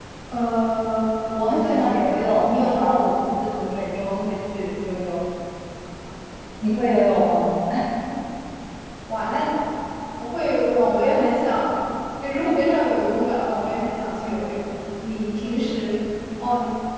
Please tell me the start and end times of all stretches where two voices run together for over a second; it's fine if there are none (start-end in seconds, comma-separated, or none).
1.4-3.0